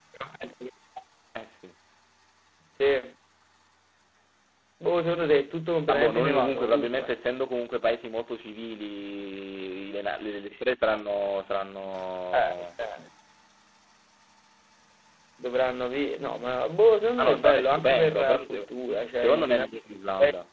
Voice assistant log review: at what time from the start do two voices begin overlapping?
6 s

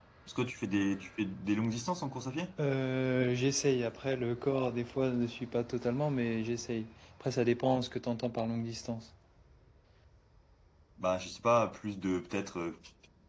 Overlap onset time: none

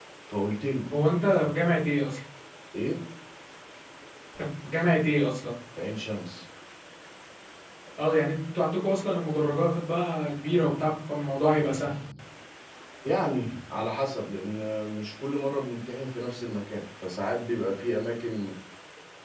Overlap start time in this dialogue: none

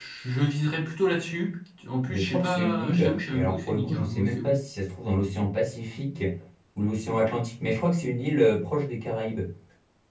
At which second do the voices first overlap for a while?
2 s

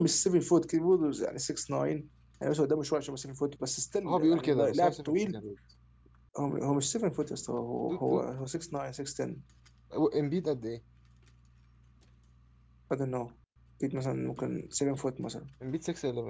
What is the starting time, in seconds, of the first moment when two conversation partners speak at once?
4 s

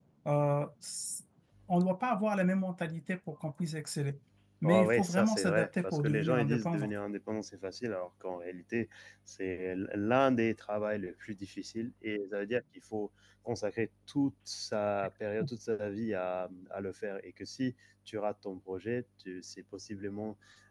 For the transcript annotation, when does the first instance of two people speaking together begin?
5 s

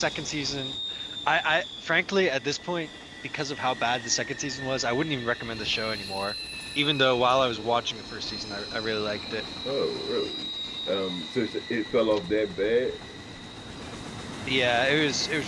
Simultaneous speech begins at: none

